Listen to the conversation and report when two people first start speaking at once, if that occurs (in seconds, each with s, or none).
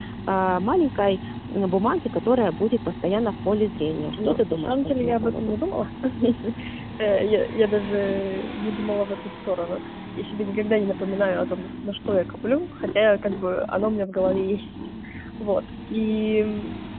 4.2 s